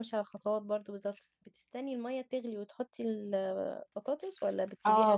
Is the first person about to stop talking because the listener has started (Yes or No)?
Yes